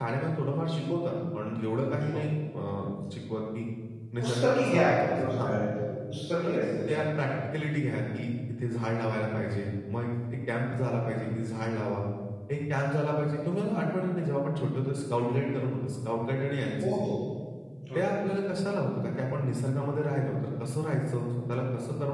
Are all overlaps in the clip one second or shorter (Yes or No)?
No